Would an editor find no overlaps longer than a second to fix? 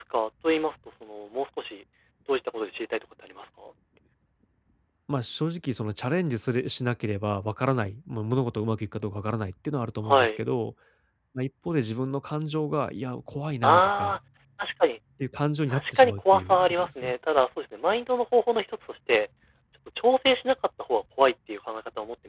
No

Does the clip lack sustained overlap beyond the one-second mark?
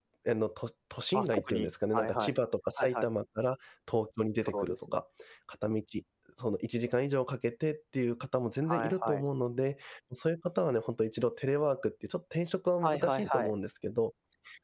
No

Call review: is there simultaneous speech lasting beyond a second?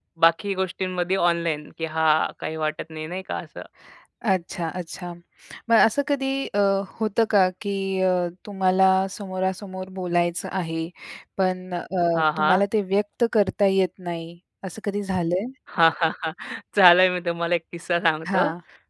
No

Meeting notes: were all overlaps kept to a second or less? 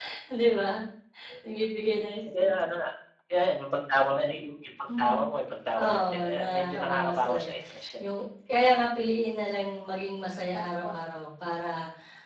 No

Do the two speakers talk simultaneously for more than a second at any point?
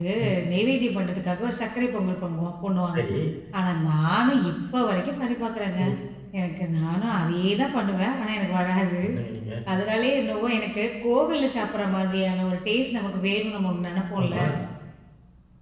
No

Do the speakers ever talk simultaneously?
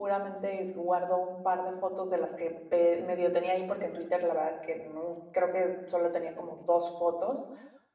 No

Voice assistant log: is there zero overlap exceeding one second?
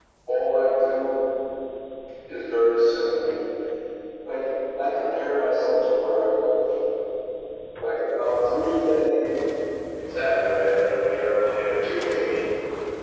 Yes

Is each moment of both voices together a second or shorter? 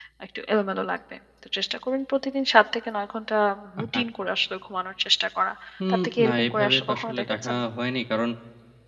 No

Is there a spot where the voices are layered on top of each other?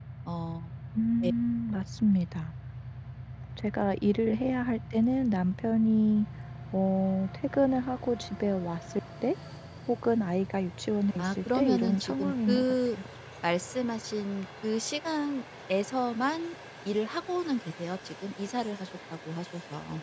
Yes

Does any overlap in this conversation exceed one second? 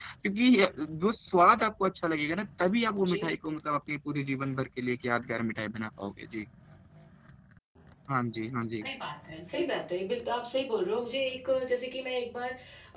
No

